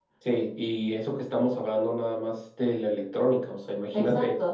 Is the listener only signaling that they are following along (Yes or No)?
No